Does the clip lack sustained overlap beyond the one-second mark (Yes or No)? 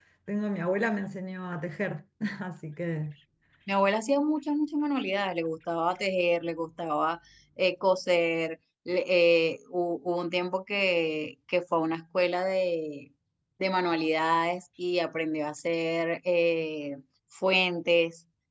Yes